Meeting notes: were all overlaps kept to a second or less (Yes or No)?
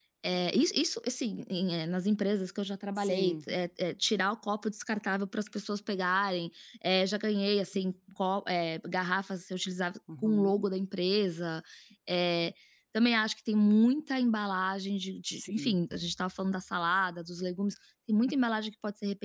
Yes